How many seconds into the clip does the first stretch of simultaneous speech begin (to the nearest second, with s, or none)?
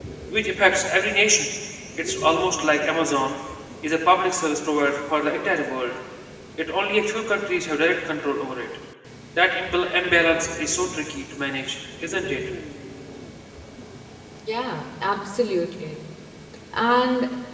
none